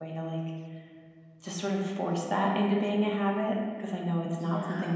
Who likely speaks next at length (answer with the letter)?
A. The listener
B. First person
B